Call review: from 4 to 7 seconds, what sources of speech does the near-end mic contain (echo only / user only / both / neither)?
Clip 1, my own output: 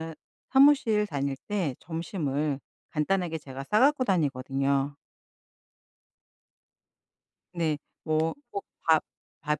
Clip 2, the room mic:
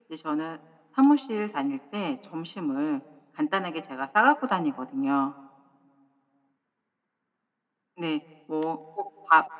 echo only